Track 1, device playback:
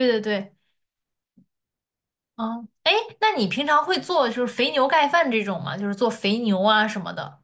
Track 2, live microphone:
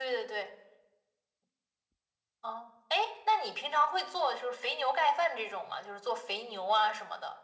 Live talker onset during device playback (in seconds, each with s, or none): none